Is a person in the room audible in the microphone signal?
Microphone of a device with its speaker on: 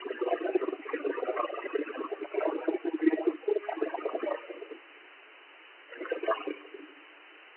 No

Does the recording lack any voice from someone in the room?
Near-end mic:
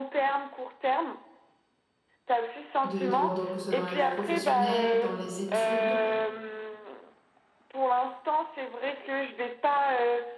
No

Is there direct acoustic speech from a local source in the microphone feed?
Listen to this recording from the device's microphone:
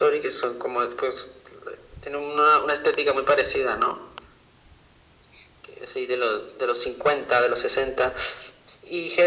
No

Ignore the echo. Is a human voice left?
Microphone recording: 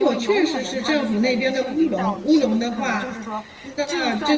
Yes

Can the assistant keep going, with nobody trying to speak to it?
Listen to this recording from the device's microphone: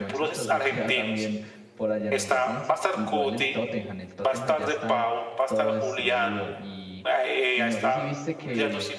No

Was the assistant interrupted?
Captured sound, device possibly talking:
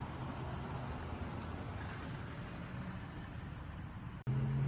No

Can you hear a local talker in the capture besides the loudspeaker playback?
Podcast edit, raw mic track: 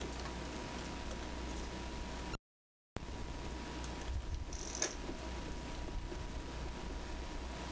No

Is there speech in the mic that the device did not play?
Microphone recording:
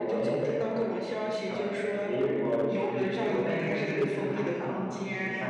Yes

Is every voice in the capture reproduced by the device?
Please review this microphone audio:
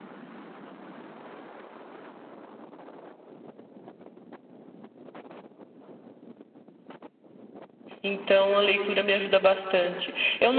No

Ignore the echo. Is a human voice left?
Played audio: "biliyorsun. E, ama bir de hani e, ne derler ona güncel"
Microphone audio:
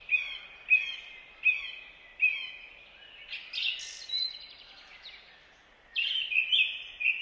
No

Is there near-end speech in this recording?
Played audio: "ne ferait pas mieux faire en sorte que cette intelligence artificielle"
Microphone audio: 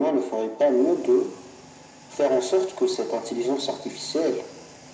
No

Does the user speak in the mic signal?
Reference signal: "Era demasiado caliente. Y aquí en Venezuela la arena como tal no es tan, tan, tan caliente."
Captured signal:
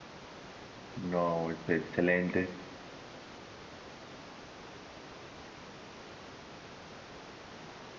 Yes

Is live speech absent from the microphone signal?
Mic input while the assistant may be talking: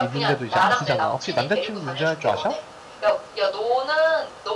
No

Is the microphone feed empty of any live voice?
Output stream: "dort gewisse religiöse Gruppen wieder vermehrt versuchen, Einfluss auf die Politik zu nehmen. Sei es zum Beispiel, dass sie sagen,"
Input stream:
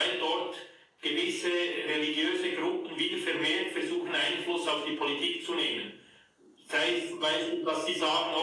Yes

